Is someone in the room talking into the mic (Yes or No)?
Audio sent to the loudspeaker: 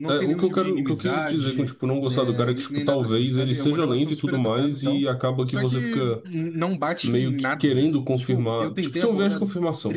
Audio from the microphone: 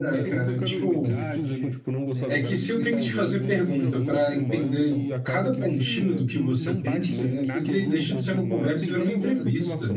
Yes